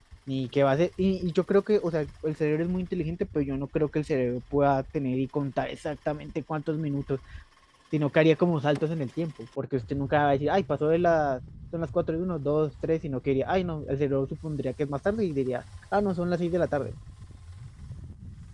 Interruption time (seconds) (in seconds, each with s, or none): none